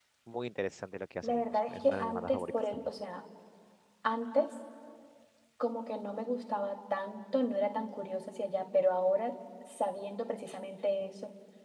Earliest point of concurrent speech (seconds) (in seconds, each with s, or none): 1.2 s